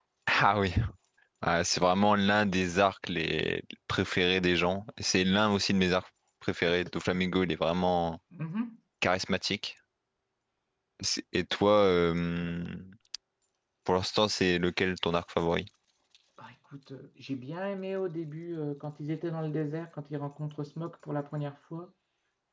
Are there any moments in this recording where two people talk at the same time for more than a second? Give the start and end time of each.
none

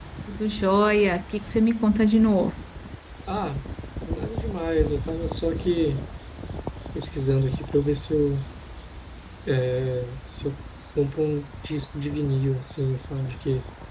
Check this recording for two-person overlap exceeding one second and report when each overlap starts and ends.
none

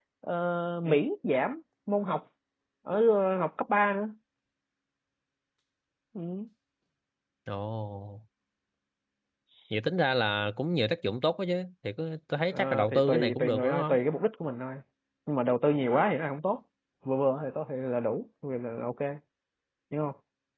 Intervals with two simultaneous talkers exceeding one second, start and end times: 12.5-13.9

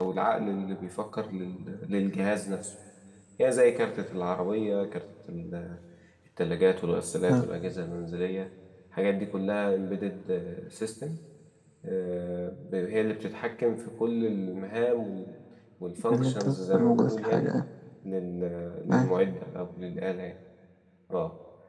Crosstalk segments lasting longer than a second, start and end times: 16.1-17.5

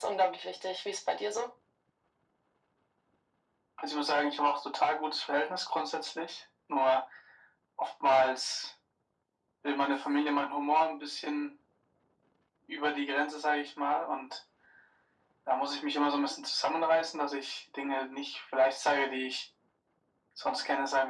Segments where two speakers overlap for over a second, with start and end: none

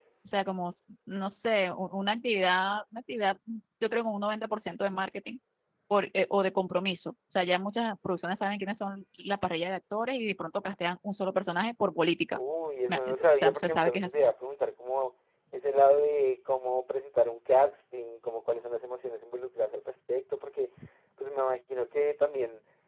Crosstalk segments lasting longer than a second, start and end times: 12.9-14.2

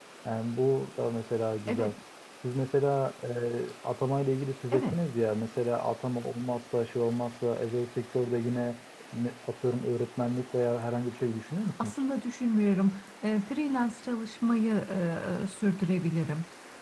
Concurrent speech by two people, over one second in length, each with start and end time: none

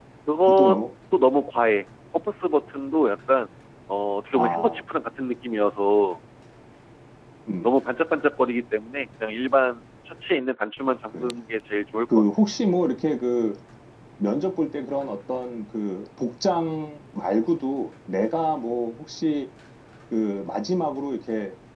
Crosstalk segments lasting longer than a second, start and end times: none

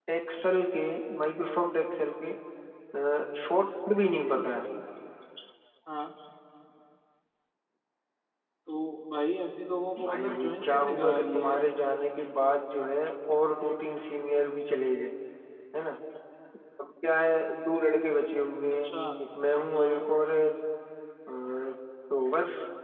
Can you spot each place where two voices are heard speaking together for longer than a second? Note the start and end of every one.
10.0-11.6

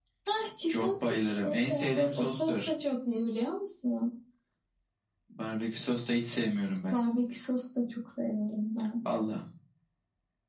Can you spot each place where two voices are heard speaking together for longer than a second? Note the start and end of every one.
0.7-2.7

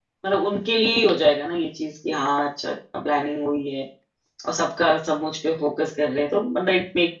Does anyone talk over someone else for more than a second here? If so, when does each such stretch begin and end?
none

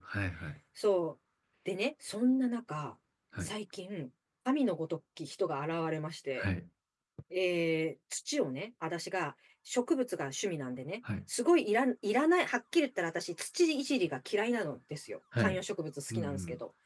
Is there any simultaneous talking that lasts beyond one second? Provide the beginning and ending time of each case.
none

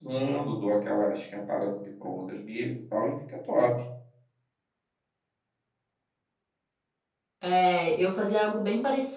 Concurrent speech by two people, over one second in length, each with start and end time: none

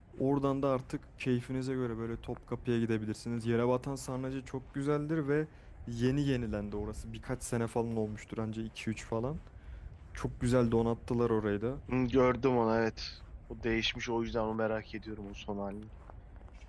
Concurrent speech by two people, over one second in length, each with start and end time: none

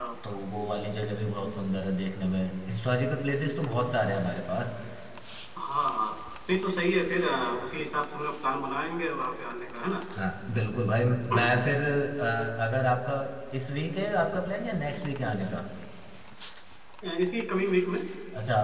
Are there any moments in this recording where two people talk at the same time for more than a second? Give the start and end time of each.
none

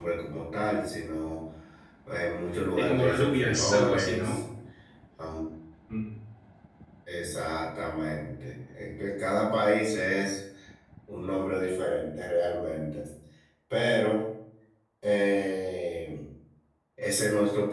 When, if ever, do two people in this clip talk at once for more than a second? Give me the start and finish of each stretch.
2.8-4.4

